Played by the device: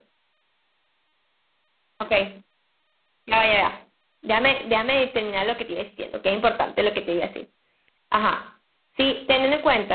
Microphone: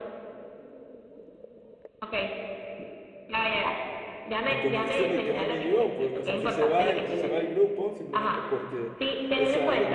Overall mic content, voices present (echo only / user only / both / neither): both